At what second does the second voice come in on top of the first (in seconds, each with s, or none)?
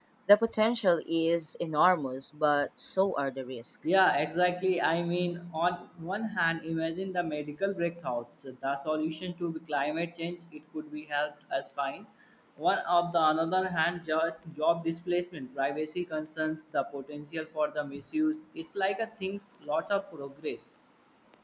none